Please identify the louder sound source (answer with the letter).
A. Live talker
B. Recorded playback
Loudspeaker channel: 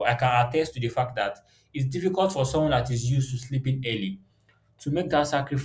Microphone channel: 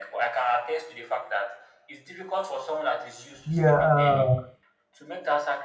A